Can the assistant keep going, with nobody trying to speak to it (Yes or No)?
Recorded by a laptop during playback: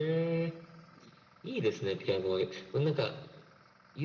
Yes